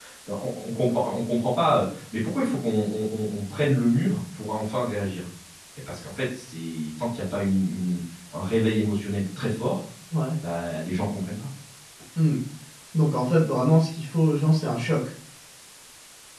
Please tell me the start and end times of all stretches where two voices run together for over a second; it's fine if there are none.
none

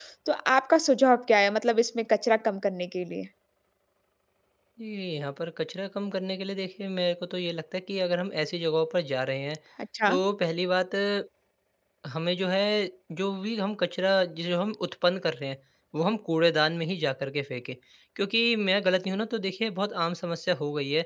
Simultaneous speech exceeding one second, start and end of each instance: none

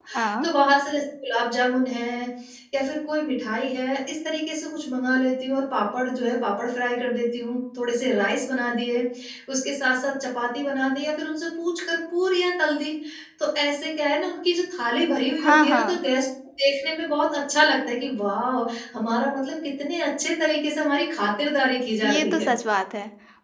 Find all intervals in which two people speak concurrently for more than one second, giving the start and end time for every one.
none

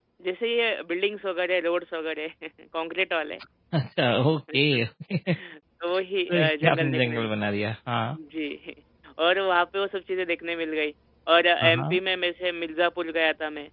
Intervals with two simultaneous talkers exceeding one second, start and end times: 6.3-7.5

